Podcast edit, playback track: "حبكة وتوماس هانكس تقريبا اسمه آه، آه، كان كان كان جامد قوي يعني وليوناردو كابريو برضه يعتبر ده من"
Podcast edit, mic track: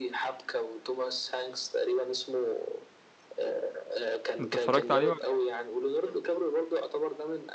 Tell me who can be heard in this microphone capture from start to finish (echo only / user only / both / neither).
both